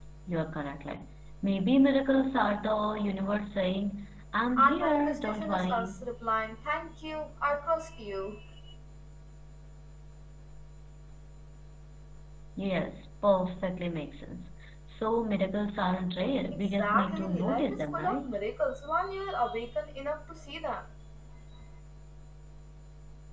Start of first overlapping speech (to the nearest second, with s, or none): 5 s